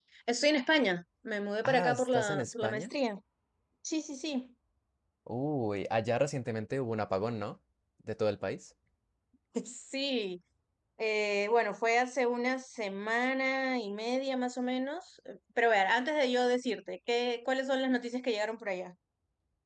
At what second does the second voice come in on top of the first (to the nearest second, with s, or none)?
2 s